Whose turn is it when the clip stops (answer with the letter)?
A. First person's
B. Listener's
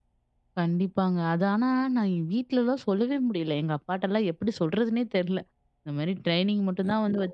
A